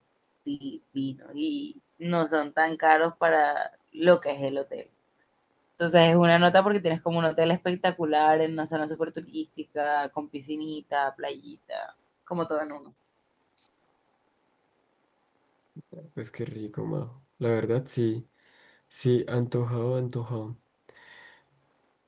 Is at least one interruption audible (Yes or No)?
No